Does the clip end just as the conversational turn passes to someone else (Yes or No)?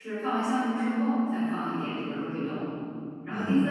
No